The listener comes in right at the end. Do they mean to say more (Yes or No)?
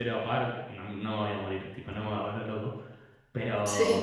No